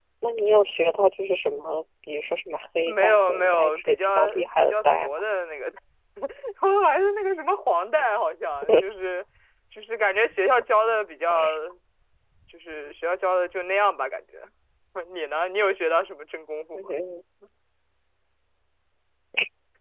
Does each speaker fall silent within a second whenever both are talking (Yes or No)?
No